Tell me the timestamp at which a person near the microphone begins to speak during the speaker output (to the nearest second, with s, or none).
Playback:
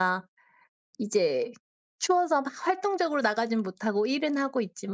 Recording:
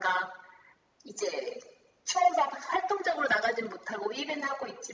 none